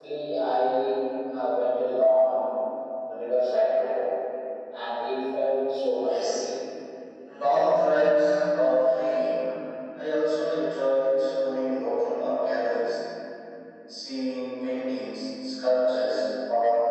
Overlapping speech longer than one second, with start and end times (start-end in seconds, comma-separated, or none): none